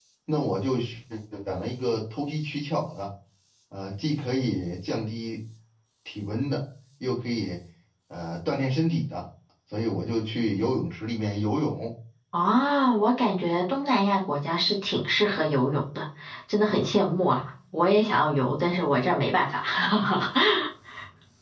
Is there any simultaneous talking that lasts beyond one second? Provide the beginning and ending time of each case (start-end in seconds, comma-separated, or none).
none